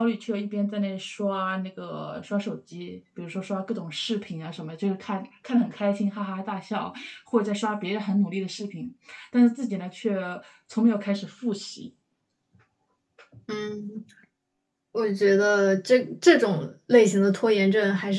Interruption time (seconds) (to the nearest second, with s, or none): none